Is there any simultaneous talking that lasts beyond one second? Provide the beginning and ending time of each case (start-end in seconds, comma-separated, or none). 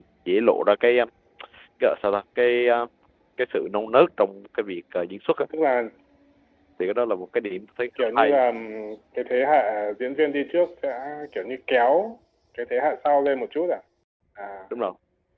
none